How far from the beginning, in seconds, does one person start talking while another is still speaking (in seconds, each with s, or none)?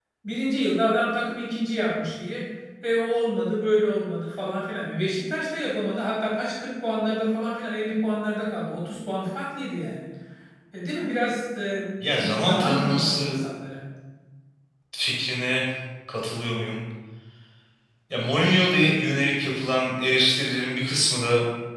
12.0 s